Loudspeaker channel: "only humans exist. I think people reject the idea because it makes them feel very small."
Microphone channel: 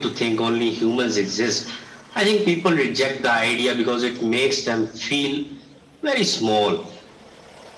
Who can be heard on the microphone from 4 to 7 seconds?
echo only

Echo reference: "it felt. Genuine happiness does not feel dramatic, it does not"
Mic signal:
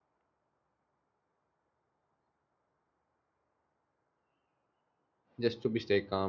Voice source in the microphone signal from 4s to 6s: user only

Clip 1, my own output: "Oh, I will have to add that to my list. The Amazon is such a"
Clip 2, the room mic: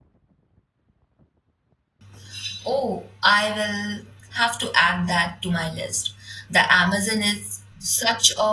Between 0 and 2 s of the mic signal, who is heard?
neither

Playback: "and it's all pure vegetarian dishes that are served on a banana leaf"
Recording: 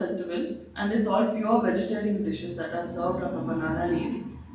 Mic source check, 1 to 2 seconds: echo only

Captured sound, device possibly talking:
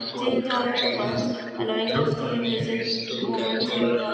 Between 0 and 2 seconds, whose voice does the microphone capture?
both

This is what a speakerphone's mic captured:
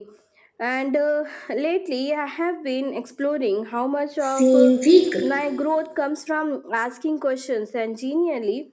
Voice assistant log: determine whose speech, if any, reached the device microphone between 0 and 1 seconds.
echo only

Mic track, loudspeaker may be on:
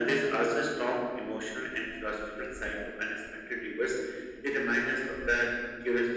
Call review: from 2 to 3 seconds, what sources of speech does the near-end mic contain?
echo only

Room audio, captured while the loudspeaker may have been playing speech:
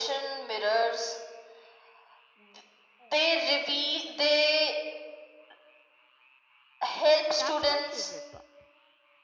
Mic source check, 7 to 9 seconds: both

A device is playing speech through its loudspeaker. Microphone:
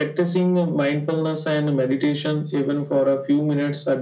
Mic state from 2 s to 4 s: echo only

